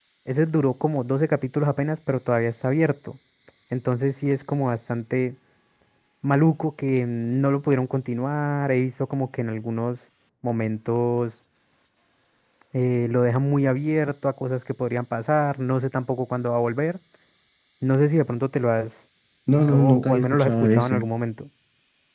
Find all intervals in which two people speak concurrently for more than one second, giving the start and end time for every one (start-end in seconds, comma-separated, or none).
19.7-21.0